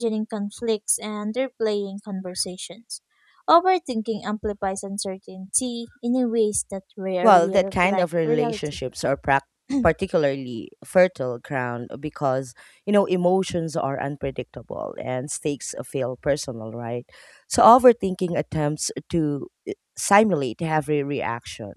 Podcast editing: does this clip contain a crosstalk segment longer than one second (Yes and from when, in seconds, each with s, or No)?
Yes, from 7.2 s